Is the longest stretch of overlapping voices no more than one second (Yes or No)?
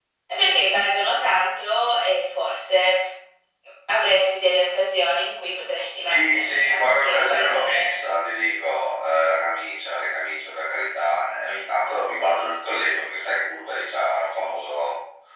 No